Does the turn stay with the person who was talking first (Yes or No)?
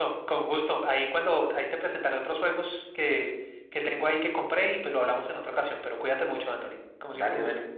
No